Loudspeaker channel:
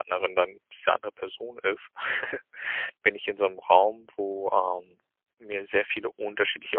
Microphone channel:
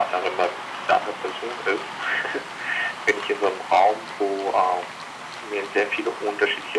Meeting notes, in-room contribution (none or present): none